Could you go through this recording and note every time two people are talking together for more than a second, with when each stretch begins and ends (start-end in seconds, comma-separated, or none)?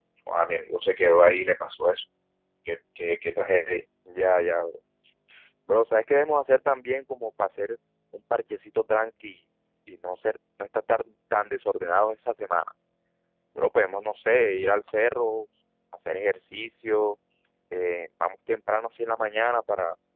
none